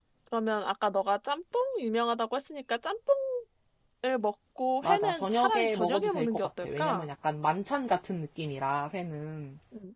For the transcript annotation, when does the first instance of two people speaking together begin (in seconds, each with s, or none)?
4.8 s